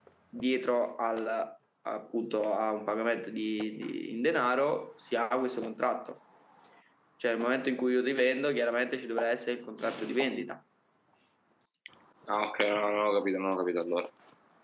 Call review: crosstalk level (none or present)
none